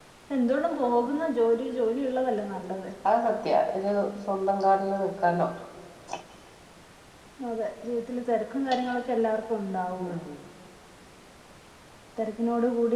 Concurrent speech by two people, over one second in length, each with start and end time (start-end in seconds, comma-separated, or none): none